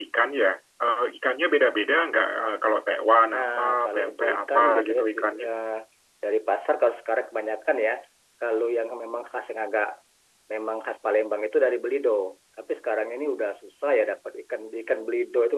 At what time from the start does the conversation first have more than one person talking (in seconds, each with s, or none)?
3.3 s